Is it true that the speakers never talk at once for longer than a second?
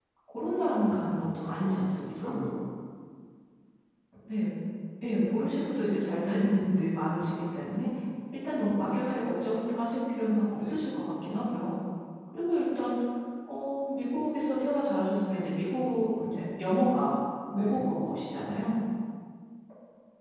No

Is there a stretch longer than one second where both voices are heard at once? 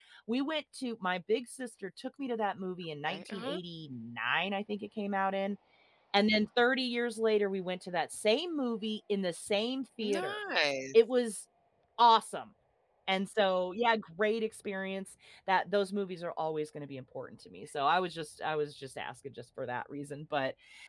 No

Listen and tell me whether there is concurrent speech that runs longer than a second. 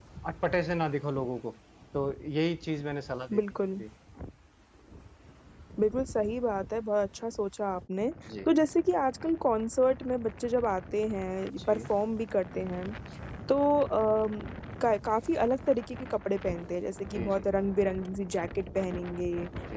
No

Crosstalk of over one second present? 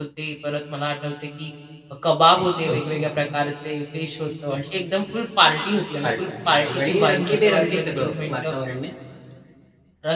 Yes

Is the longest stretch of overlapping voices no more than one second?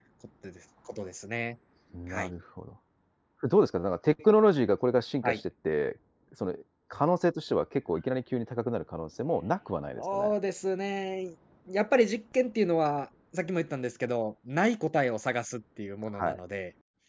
Yes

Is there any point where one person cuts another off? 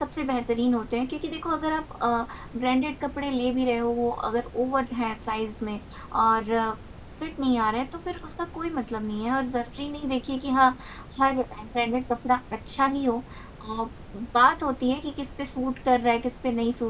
No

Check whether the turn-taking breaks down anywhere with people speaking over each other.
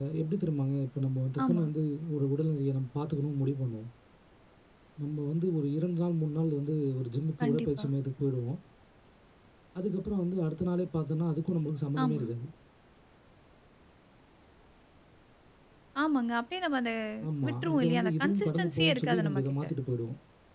Yes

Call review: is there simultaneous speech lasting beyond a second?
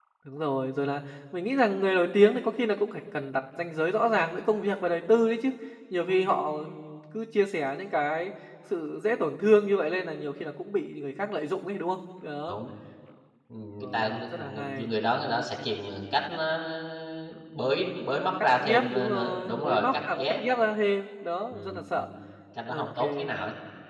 Yes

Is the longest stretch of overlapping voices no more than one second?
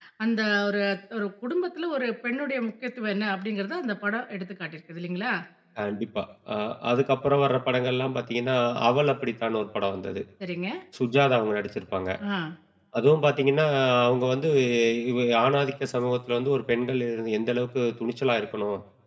Yes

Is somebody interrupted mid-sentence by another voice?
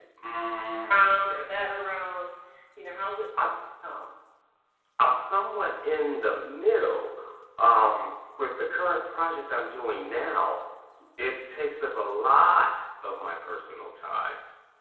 No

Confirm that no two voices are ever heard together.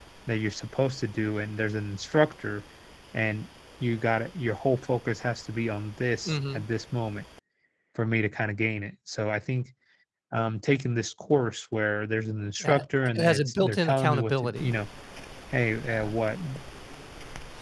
No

